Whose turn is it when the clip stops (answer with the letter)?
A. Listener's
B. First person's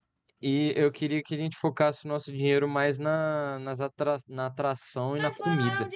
A